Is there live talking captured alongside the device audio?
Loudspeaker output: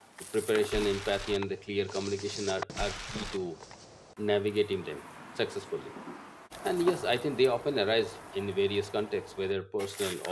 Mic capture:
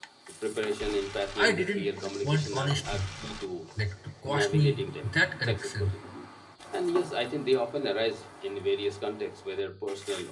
Yes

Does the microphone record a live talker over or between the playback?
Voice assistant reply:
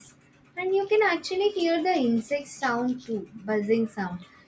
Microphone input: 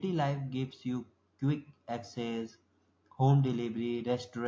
Yes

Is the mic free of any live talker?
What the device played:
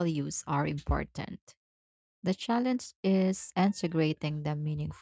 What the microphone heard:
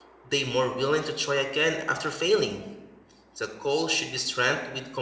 No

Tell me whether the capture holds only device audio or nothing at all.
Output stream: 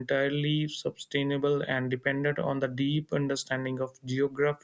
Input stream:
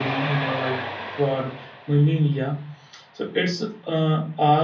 No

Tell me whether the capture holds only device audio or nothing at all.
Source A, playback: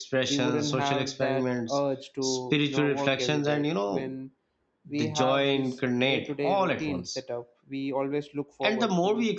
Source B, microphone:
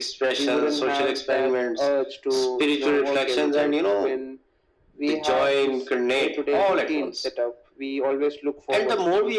Yes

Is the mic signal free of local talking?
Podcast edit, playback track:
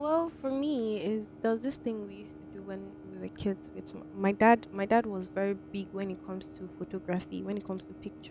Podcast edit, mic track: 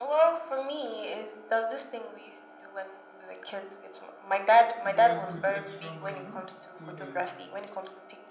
No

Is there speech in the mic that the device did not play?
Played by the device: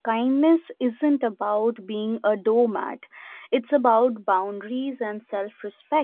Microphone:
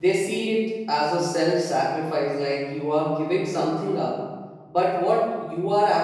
Yes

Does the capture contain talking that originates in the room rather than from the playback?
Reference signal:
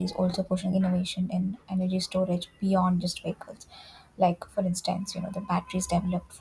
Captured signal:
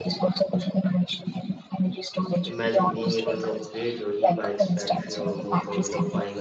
Yes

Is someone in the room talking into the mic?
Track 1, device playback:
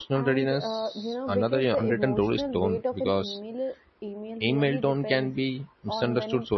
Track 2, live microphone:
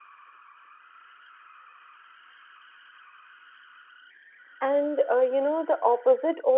Yes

